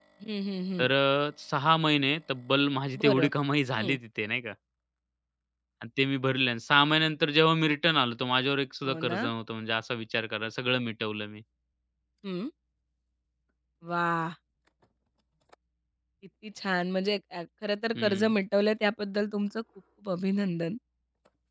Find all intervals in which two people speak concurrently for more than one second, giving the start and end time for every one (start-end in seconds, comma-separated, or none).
none